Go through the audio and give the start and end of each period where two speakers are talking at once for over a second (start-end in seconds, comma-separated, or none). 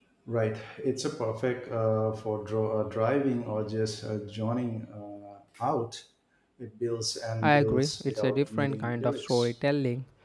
7.4-9.5